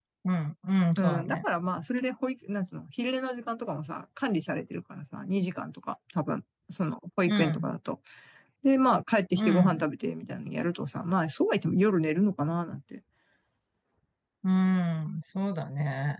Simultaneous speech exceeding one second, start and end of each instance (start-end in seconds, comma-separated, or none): none